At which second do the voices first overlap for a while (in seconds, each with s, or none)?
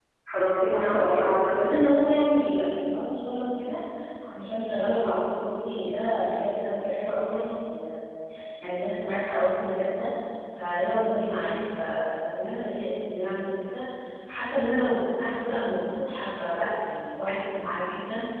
0.7 s